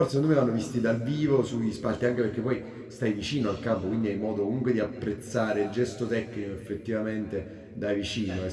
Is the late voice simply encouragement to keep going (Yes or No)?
Yes